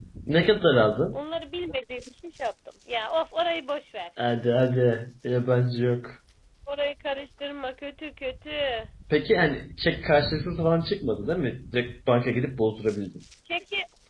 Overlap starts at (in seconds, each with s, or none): none